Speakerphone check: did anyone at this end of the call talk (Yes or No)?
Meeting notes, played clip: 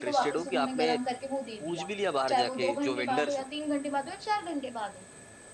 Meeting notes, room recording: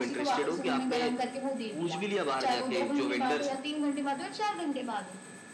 No